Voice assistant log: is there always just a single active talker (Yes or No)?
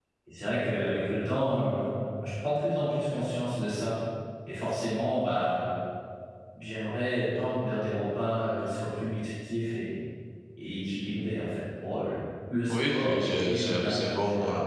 No